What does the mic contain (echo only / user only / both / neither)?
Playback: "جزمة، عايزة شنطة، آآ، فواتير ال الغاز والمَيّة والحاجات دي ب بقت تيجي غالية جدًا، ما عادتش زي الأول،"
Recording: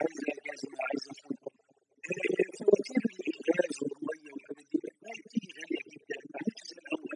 echo only